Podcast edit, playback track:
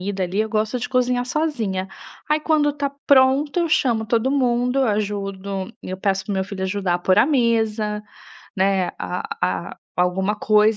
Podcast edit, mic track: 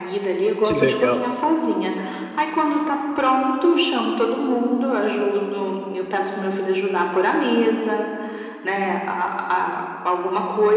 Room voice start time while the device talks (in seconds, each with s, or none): 0.6 s